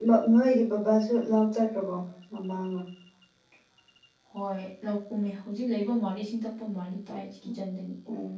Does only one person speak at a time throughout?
Yes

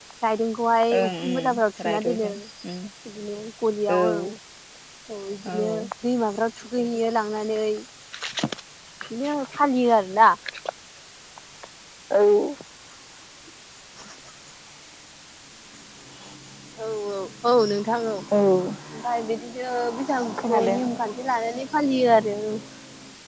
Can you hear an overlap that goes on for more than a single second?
Yes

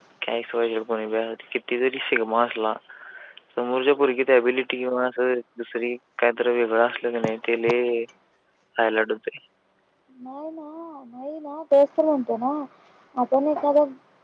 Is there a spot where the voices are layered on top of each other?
No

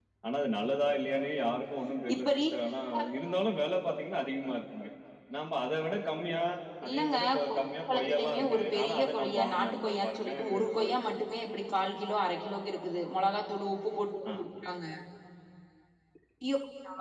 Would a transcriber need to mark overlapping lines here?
Yes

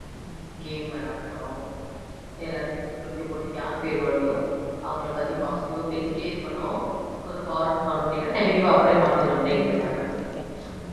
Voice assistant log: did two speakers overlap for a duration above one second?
Yes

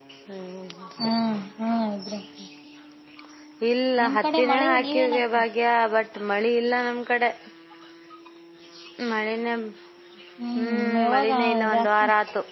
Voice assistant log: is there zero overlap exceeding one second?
No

